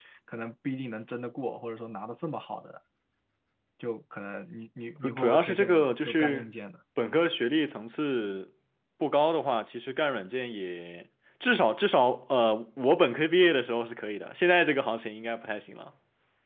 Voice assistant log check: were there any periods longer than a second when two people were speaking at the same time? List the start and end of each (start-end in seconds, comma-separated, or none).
5.0-6.5